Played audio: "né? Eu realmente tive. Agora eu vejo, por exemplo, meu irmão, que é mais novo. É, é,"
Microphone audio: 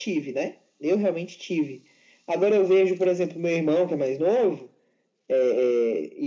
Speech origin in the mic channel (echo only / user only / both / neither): echo only